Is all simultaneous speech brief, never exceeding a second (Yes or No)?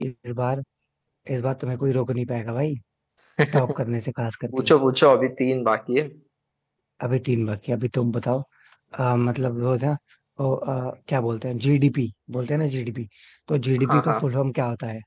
Yes